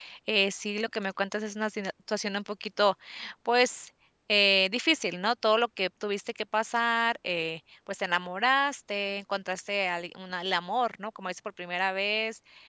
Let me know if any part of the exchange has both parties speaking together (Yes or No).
No